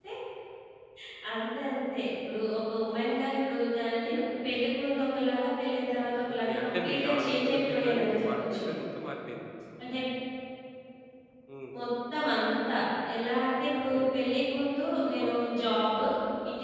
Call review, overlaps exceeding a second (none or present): present